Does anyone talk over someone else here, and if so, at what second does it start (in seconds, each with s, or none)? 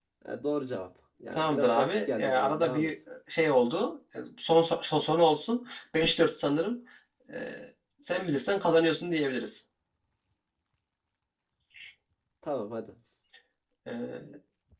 1.4 s